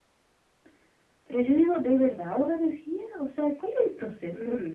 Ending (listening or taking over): taking over